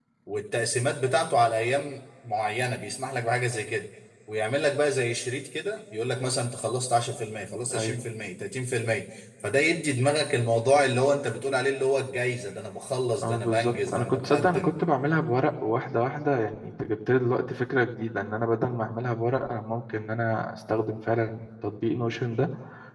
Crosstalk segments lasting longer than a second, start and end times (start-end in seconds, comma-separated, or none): 13.2-14.8